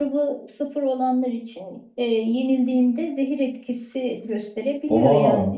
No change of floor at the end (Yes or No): Yes